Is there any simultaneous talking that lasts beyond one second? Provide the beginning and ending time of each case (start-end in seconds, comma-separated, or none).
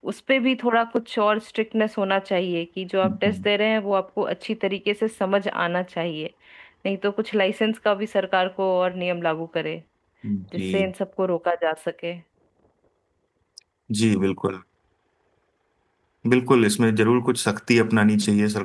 none